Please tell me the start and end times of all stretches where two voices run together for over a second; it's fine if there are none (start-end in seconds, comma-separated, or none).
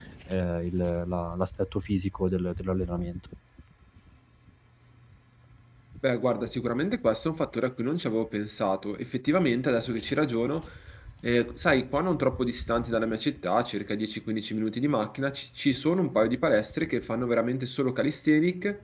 none